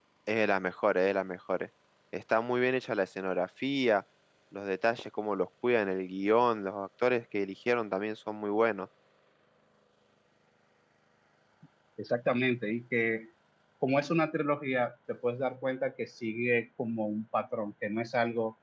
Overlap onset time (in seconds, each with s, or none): none